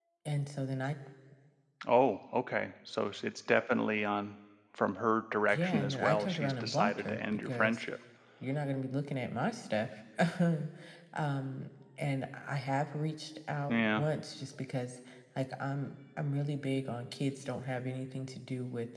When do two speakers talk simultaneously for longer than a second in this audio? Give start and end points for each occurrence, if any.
5.5-7.8

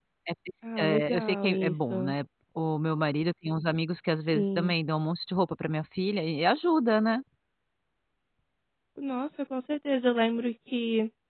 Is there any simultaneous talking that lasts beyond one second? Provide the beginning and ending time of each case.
0.8-2.1

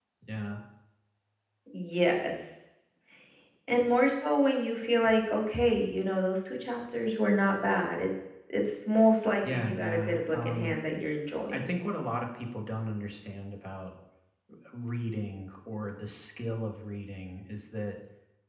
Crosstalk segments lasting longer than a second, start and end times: 9.4-10.8

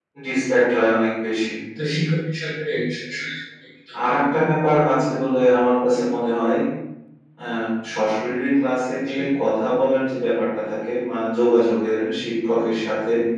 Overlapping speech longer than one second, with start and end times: none

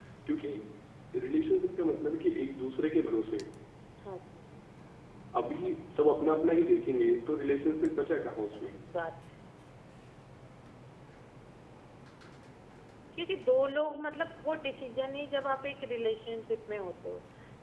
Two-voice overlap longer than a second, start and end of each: none

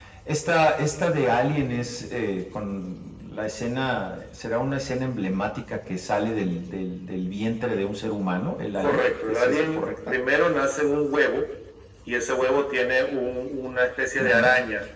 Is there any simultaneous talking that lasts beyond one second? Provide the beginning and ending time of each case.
8.8-10.2

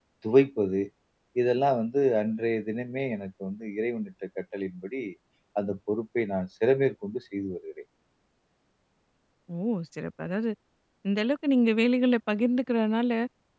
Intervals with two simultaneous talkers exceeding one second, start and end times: none

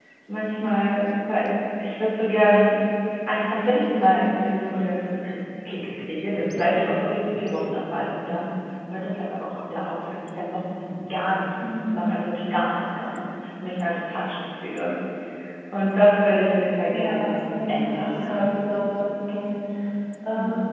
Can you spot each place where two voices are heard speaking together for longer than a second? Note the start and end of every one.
16.9-18.4

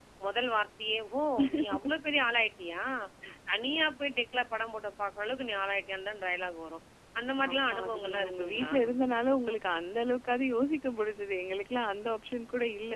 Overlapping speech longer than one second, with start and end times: 7.5-8.7

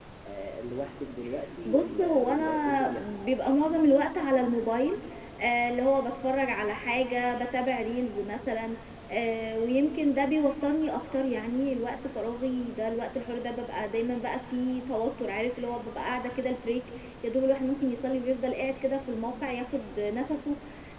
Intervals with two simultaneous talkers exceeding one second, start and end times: 1.6-2.9

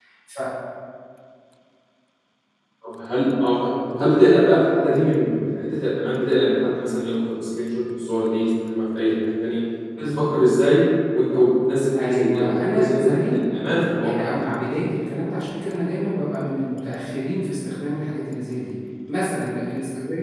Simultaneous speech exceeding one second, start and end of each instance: 12.0-13.4

